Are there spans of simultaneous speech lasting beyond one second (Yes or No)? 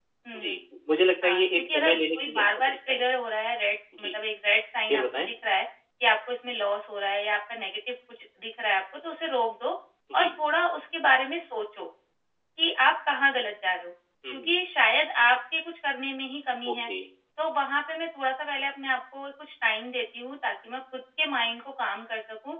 Yes